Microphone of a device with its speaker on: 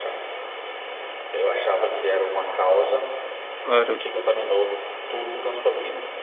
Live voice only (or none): claro.